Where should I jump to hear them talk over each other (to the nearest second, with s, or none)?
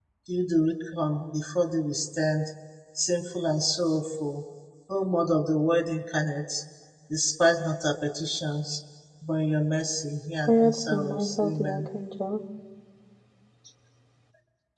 10 s